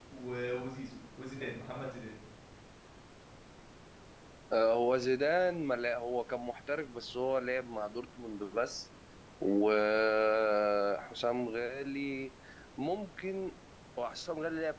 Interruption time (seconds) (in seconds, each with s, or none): none